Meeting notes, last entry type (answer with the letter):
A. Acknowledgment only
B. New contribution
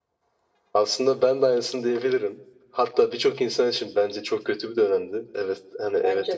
A